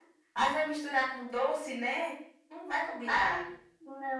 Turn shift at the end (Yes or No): Yes